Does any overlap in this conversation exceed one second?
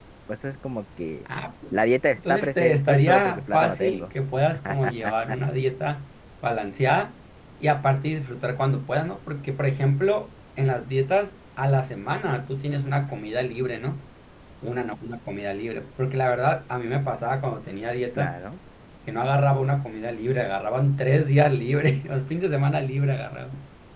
Yes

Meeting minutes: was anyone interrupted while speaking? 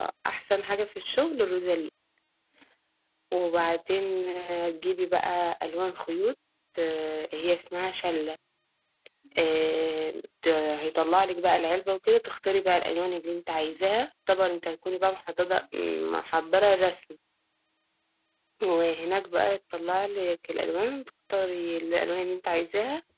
No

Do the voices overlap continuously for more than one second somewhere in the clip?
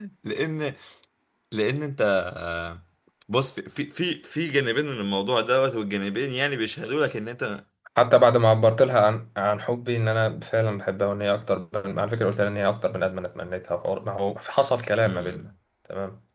No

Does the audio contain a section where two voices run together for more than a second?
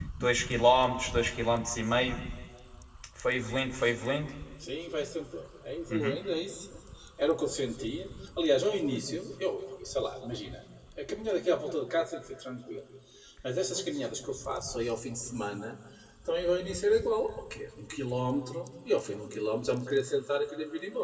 No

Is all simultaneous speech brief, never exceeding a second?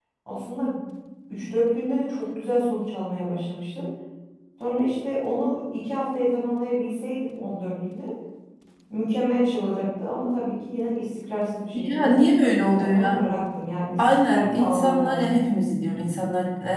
No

